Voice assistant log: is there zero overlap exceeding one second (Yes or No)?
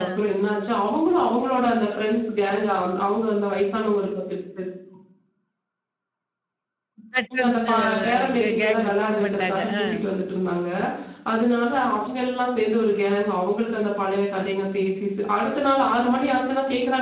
No